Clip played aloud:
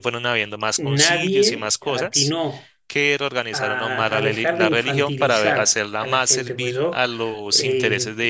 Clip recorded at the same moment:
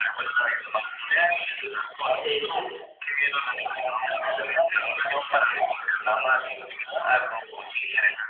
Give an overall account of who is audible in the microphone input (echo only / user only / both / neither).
both